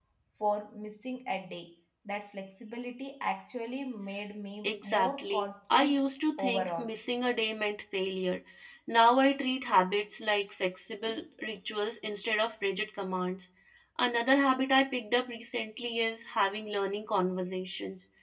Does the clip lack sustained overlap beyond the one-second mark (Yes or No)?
No